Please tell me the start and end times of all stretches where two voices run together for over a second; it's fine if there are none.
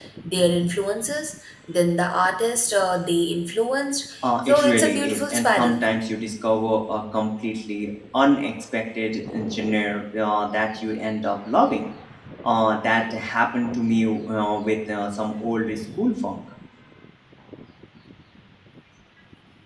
4.4-5.8

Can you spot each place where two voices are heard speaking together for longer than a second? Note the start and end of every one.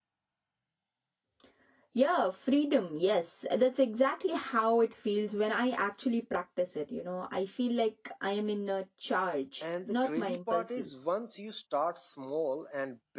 9.6-10.9

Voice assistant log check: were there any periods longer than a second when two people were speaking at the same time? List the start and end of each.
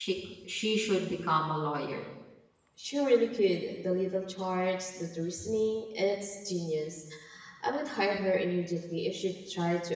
none

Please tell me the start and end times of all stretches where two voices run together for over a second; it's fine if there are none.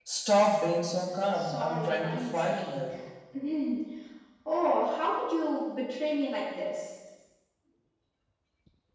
1.3-2.8

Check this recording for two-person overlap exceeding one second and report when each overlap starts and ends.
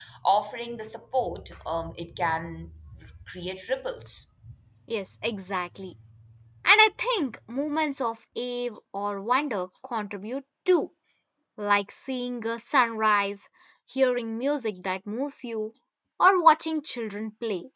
none

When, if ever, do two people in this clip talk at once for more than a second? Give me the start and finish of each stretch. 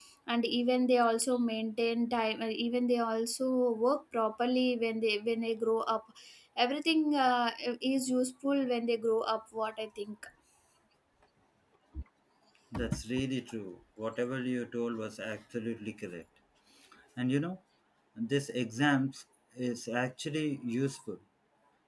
none

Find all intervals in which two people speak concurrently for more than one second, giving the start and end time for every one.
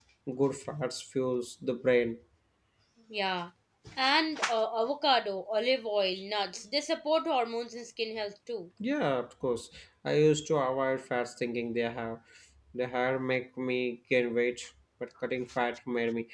none

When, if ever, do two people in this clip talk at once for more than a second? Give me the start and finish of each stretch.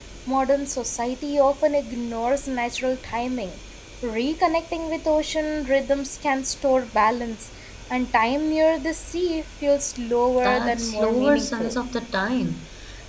10.4-11.7

